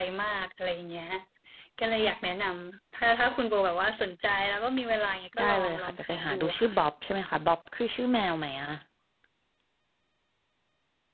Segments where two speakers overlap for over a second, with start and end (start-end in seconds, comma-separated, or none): 5.4-6.8